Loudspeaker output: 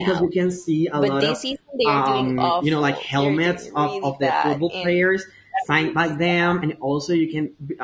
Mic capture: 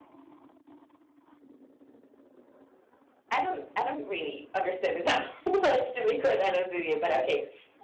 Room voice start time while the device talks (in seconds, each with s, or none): 3.3 s